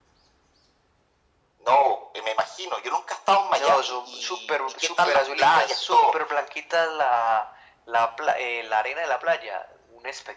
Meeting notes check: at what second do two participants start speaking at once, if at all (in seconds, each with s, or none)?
3.5 s